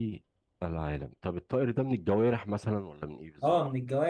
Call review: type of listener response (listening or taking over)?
taking over